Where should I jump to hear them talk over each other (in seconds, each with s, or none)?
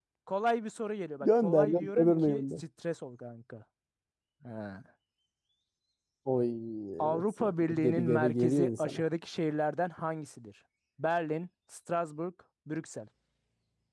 1.2 s